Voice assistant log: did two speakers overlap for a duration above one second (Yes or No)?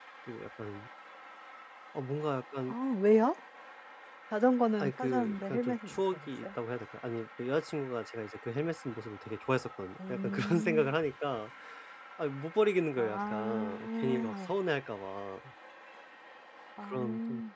Yes